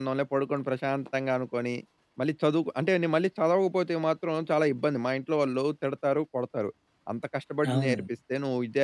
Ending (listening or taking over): listening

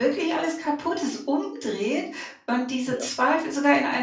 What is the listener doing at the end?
listening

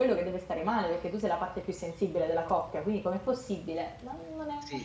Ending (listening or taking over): taking over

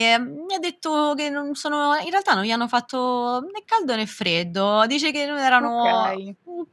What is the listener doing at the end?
listening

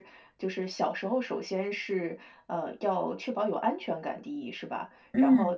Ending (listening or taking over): listening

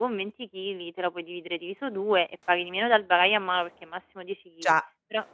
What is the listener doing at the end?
listening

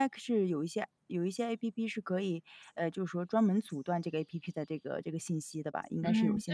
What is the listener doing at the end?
taking over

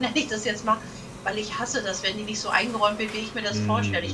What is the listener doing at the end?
listening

